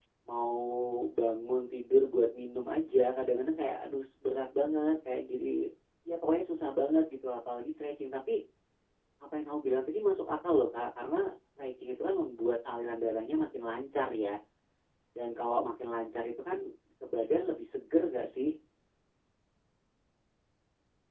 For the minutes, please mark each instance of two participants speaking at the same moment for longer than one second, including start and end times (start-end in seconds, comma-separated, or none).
none